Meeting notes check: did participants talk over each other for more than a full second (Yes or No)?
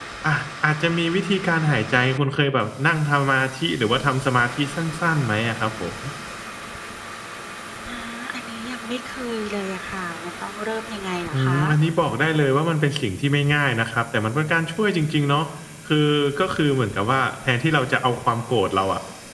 No